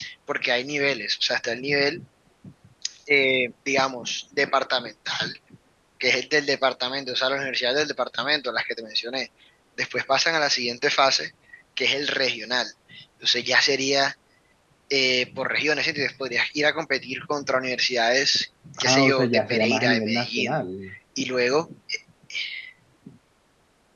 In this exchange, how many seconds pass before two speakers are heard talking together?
18.8 s

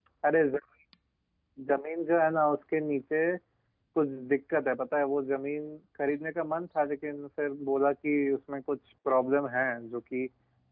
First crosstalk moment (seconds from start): none

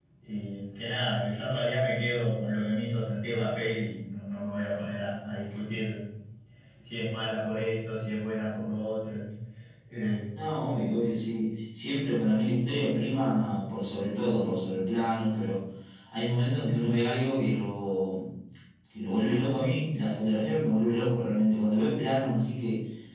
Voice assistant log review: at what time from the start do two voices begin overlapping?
none

